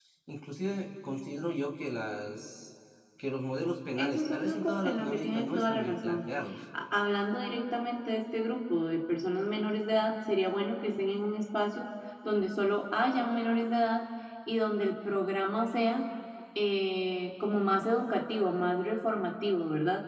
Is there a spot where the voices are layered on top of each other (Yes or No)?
Yes